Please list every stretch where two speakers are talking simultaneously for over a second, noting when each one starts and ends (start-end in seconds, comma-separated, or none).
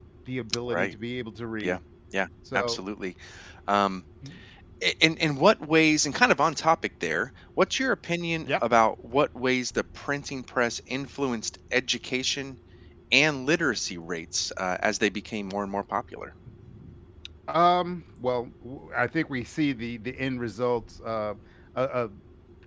none